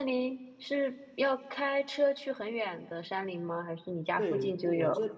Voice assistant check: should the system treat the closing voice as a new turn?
Yes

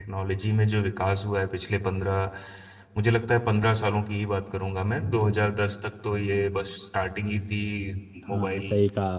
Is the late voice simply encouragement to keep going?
No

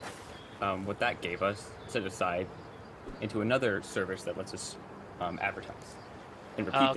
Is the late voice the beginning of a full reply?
Yes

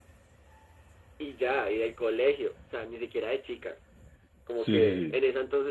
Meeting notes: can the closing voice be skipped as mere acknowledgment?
Yes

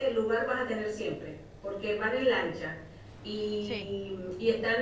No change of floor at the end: Yes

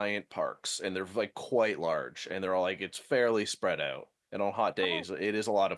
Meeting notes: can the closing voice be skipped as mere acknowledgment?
Yes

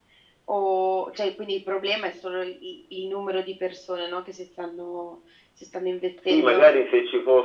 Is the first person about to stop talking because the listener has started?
Yes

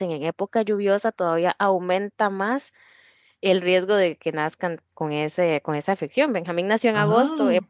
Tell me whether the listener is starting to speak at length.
No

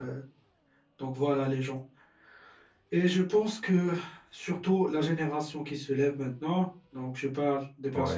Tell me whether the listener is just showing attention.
Yes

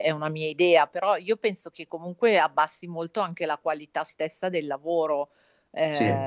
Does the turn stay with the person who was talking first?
No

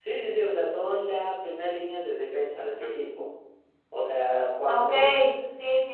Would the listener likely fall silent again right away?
No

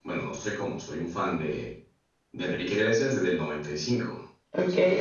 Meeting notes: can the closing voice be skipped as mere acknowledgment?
No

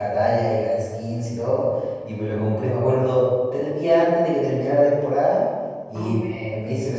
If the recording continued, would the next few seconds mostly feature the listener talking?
No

